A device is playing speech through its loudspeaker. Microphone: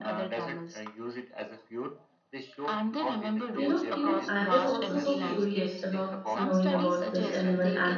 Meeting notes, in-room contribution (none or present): present